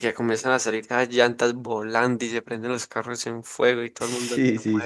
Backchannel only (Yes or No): No